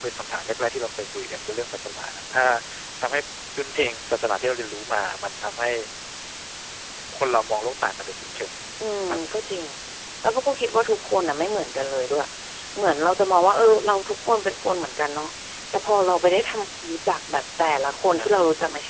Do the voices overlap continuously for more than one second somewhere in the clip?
No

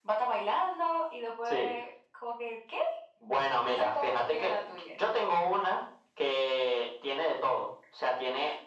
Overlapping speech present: Yes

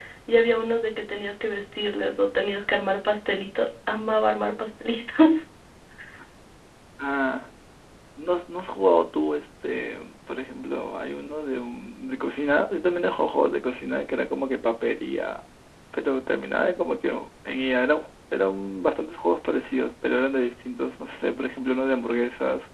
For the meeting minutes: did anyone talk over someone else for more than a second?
No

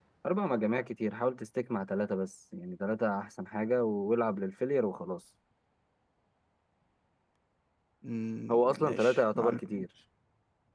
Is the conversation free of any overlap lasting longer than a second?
No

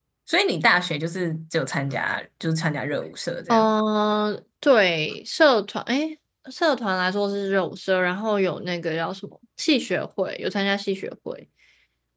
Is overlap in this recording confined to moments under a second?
Yes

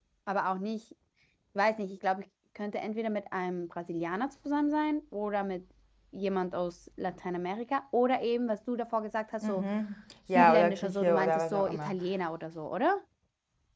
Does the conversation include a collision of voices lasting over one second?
Yes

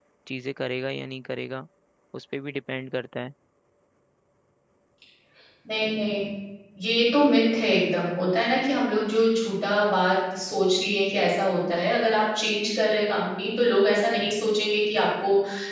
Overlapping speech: No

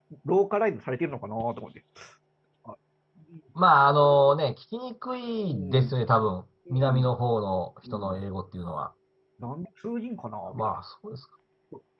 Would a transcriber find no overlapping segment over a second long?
Yes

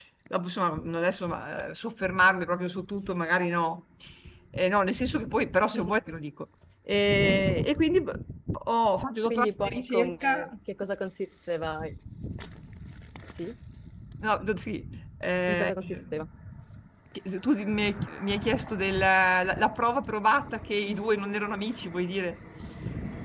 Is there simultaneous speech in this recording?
Yes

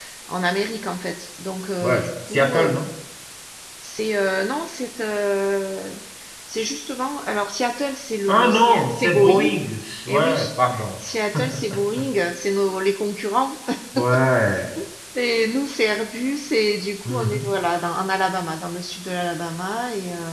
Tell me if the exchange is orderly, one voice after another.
No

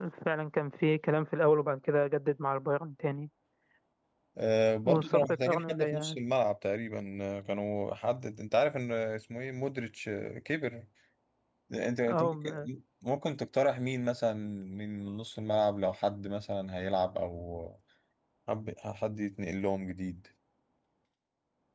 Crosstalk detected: Yes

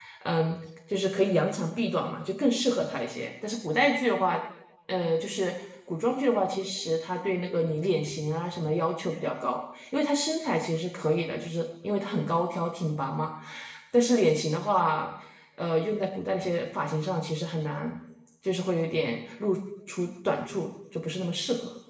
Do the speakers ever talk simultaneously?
No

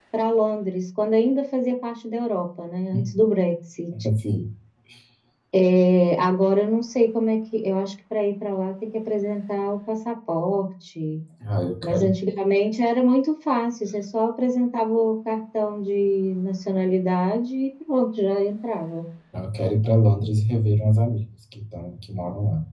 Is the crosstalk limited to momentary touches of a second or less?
Yes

